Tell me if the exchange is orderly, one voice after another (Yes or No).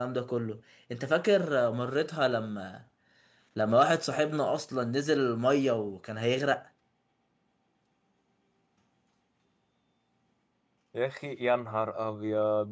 Yes